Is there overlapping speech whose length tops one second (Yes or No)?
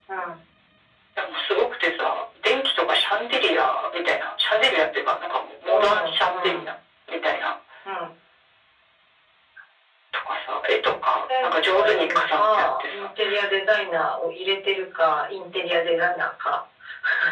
Yes